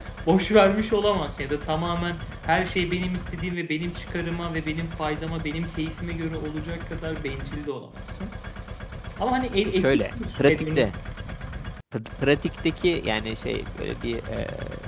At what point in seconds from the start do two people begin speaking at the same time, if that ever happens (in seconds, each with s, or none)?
9.6 s